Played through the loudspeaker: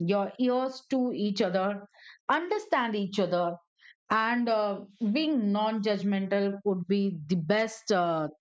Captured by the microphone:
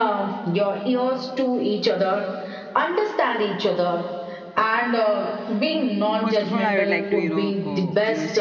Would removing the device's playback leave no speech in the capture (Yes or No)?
No